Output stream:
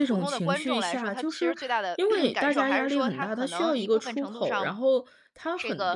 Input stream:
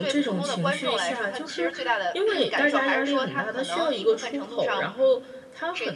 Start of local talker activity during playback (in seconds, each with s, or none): none